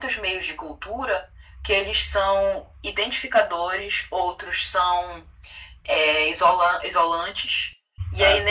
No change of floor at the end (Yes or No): Yes